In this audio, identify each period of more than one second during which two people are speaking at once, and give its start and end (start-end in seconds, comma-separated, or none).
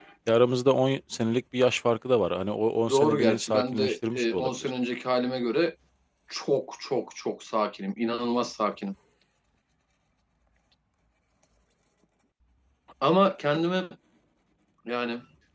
2.9-4.7